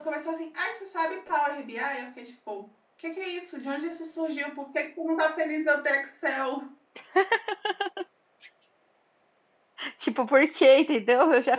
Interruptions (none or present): none